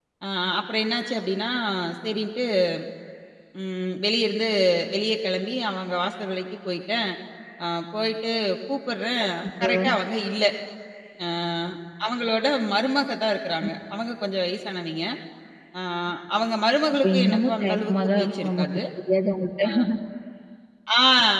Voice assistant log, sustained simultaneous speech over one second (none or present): present